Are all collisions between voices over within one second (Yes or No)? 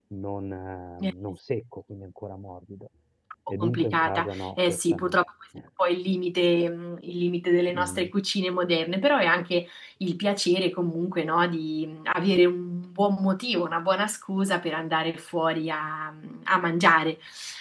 No